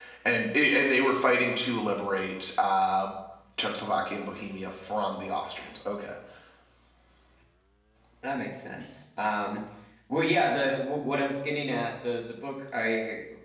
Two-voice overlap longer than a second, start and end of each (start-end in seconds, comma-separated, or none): none